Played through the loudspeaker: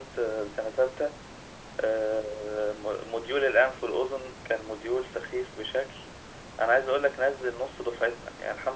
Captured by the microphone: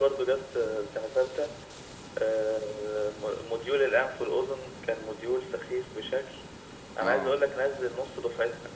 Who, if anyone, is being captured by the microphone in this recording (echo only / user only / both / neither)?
both